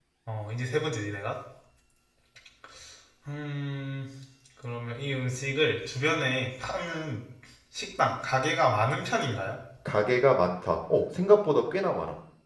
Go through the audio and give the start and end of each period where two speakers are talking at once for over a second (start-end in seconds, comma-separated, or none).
none